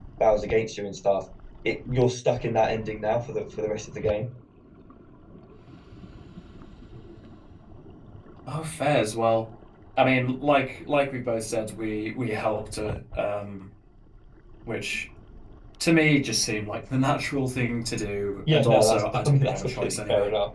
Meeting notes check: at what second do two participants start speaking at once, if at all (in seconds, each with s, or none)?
18.5 s